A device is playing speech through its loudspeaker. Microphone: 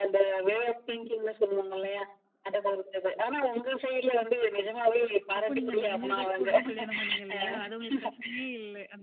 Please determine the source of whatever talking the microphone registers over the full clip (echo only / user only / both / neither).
both